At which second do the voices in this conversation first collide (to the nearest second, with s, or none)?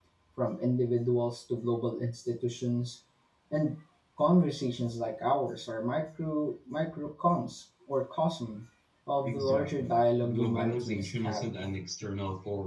9 s